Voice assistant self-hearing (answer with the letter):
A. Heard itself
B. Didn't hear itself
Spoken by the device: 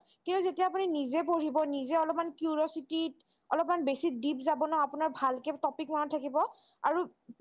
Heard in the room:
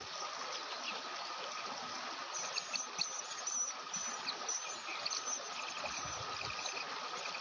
B